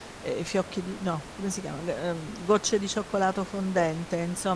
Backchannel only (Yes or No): Yes